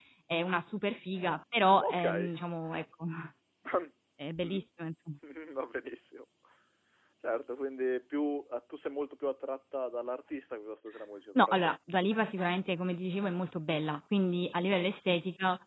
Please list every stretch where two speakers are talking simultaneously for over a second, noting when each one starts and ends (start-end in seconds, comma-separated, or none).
none